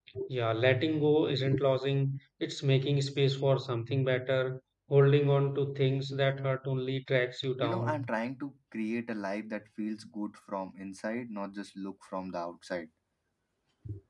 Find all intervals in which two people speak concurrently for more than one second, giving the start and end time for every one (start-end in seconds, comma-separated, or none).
none